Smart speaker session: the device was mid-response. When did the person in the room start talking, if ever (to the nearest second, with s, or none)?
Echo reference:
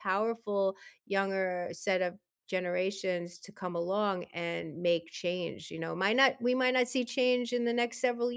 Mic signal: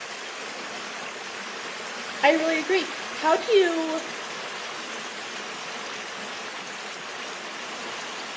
2 s